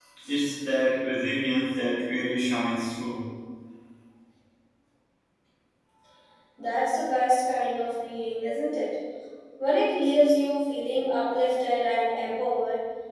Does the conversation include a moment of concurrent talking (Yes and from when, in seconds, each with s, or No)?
No